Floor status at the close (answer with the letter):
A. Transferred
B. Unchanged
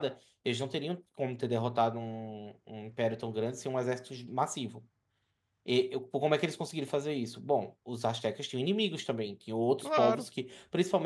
B